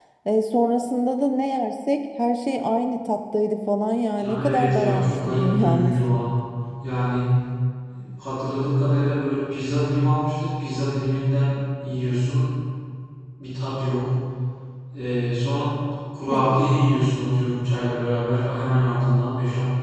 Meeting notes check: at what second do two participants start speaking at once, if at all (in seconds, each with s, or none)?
4.2 s